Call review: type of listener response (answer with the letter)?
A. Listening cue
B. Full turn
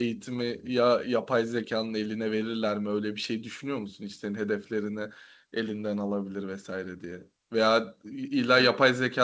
A